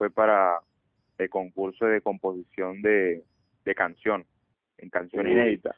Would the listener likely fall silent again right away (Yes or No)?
No